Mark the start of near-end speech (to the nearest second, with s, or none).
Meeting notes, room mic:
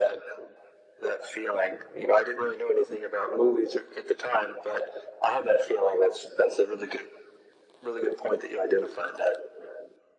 none